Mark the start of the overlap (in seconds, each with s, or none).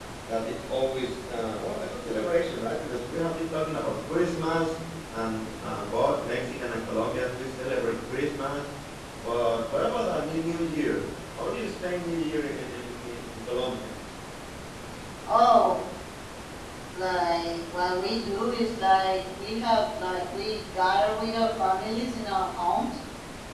none